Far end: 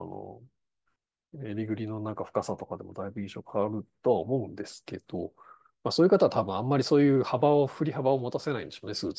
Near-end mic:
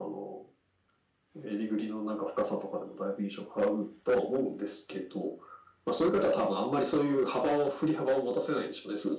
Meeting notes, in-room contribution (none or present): none